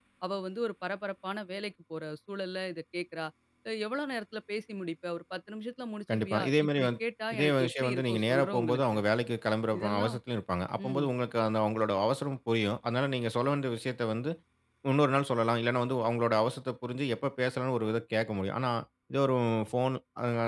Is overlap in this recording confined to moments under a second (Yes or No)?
No